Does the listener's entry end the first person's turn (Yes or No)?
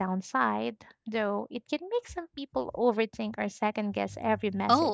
Yes